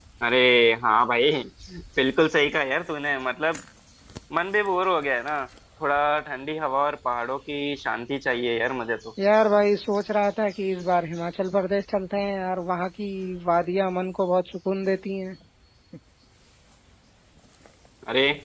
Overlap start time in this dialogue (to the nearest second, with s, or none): none